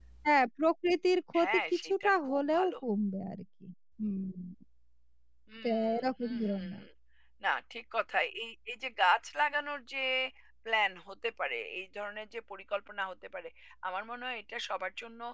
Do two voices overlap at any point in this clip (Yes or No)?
Yes